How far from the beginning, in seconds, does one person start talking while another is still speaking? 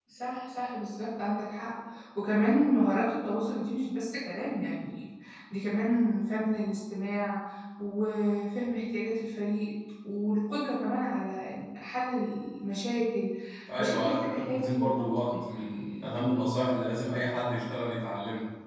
13.8 s

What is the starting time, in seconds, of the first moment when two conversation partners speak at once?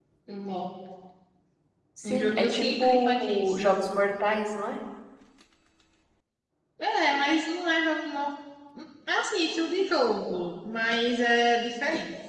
2.0 s

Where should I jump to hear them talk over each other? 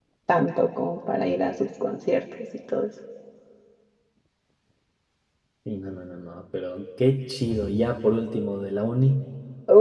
none

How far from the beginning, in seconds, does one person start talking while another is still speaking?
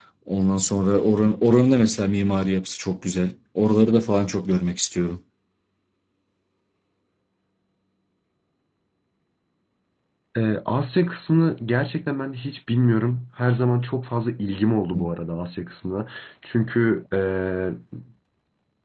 none

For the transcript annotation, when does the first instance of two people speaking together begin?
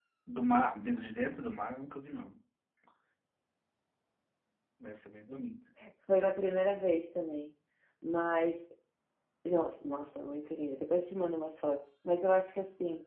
none

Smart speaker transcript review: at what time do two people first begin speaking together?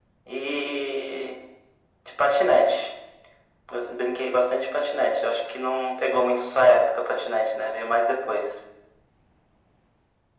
none

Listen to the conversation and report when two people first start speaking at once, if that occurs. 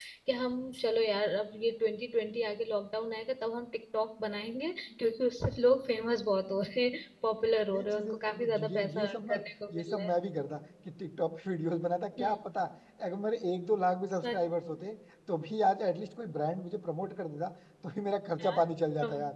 7.7 s

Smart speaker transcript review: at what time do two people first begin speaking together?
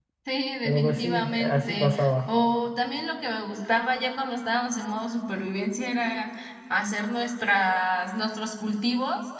0.6 s

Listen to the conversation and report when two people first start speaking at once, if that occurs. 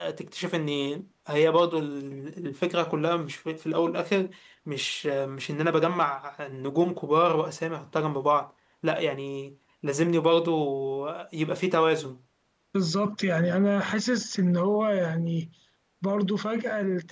none

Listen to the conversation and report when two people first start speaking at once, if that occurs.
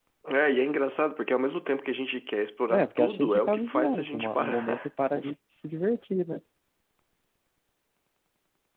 2.7 s

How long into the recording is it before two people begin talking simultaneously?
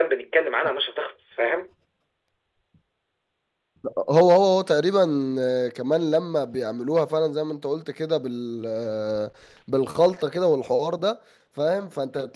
none

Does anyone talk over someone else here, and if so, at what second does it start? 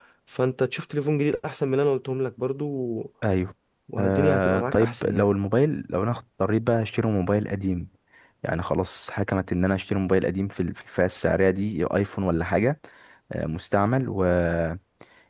4.0 s

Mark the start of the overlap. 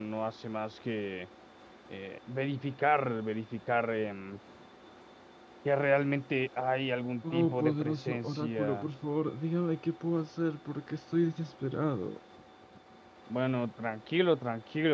7.2 s

